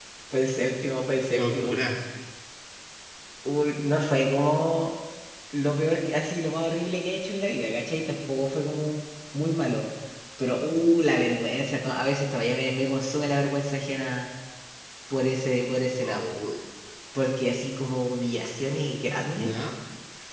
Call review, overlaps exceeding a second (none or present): none